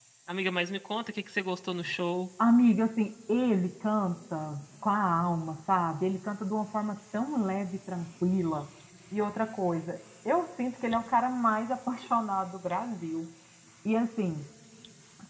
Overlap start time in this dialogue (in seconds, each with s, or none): none